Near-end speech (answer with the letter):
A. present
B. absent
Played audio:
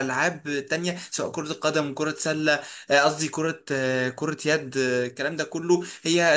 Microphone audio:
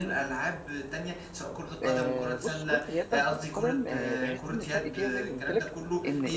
A